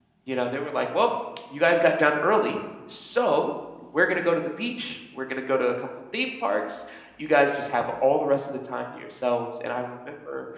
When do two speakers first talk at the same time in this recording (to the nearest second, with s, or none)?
none